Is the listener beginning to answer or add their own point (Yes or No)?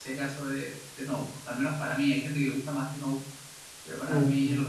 Yes